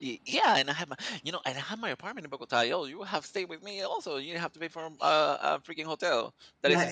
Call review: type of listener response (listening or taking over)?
taking over